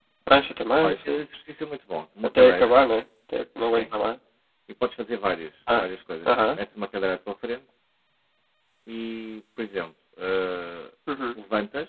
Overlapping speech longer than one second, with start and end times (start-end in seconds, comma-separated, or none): none